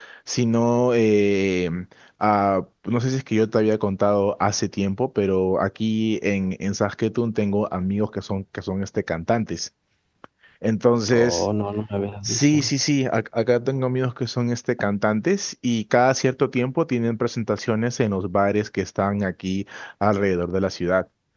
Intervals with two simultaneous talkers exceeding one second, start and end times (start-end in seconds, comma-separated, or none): none